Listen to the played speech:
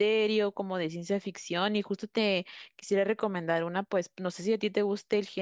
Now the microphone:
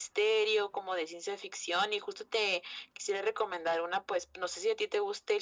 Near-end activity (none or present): none